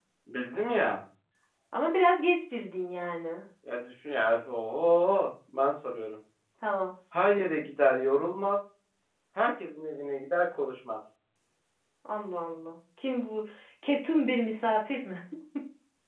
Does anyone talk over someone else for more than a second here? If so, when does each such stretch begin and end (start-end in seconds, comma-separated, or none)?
none